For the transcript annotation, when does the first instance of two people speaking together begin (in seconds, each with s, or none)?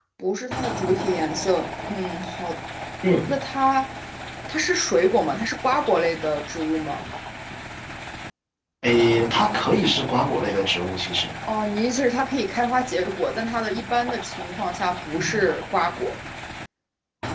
none